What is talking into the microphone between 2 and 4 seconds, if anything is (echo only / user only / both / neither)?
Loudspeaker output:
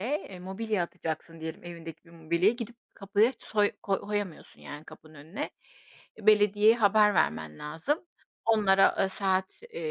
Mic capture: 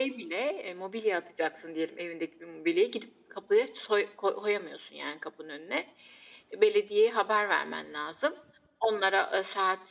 echo only